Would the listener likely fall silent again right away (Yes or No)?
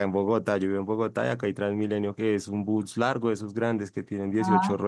Yes